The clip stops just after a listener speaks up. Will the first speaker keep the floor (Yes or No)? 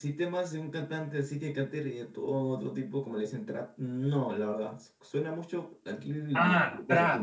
No